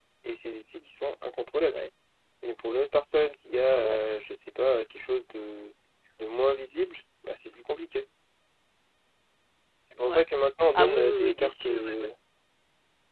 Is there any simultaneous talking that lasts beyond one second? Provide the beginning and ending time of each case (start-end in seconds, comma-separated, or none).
10.8-12.1